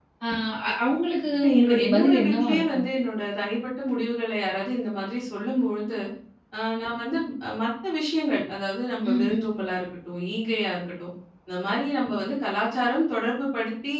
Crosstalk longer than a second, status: present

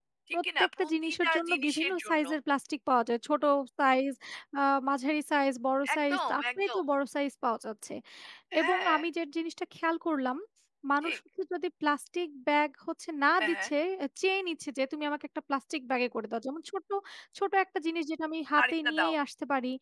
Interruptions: present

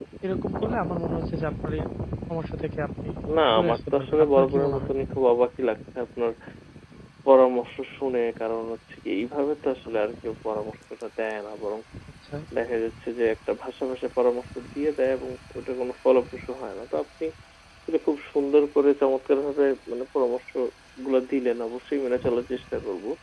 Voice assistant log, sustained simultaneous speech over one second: present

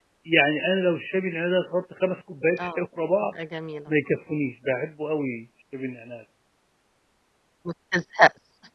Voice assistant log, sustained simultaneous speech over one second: none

